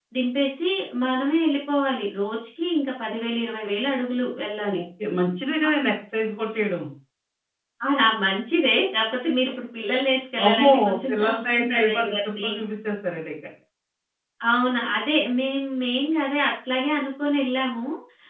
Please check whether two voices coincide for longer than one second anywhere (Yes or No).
Yes